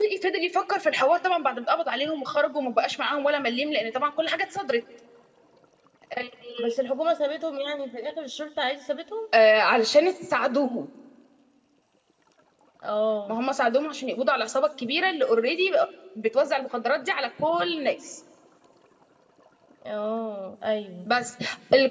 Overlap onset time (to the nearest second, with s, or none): none